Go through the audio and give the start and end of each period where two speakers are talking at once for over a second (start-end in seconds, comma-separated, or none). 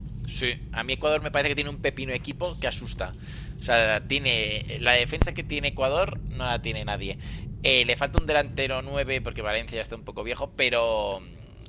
none